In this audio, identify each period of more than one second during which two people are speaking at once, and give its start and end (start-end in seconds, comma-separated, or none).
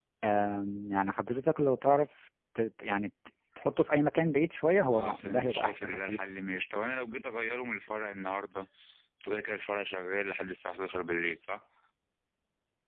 4.9-6.3